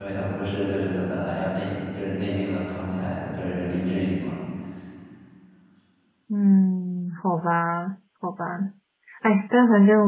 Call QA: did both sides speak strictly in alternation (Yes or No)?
Yes